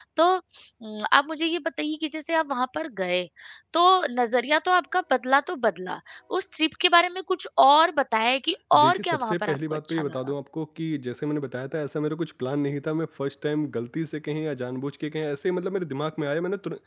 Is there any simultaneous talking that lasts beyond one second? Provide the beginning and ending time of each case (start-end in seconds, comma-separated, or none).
8.8-10.1